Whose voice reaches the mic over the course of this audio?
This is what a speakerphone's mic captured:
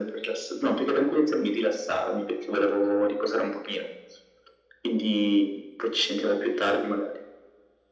echo only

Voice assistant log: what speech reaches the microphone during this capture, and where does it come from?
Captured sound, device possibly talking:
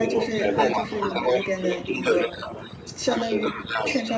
both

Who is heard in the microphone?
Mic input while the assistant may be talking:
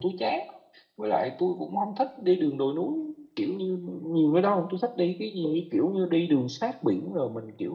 user only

